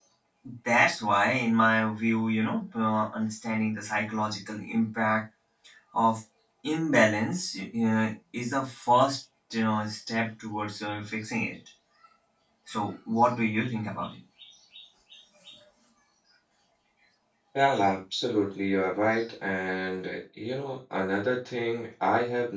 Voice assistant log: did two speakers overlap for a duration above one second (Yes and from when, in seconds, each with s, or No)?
No